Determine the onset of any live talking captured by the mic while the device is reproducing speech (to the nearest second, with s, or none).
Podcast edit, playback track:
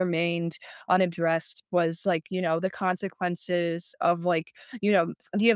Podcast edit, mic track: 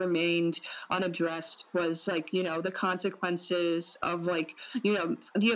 none